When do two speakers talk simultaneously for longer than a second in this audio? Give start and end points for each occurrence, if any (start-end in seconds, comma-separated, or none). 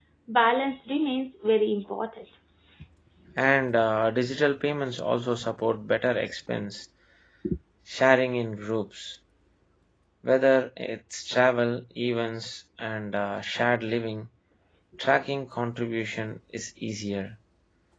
none